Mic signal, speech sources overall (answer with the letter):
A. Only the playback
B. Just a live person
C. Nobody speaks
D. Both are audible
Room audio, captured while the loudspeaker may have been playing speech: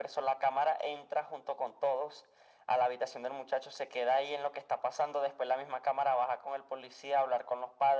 A